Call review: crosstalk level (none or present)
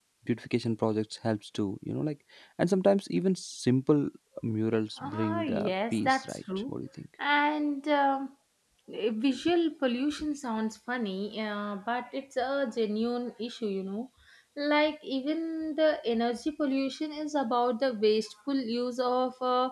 present